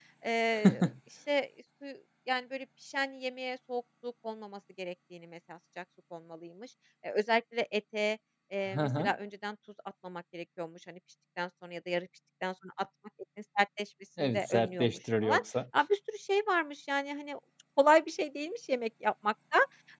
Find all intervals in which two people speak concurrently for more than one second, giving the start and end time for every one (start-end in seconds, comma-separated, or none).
14.2-15.4